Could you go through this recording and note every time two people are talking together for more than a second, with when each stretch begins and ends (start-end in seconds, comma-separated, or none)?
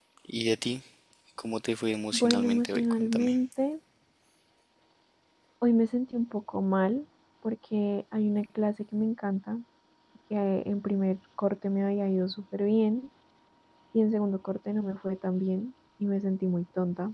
2.1-3.4